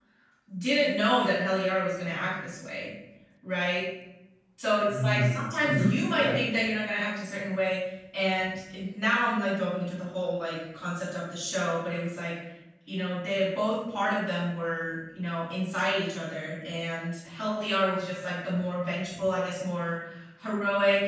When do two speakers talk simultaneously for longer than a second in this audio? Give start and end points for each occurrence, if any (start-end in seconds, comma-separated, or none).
4.9-6.4